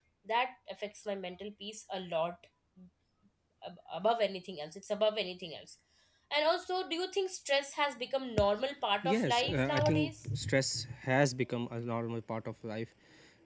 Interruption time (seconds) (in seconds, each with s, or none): 9.0 s